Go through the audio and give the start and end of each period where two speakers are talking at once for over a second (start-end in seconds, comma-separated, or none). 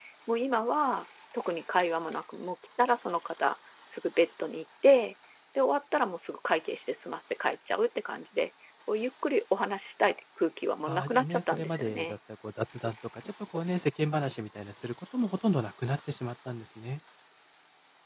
10.9-12.2